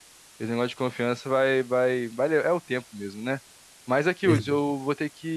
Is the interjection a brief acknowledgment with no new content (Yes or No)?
Yes